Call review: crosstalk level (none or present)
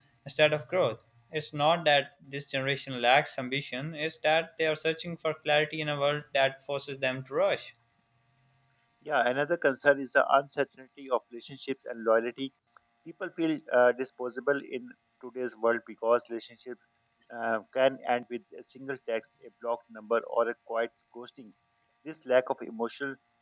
none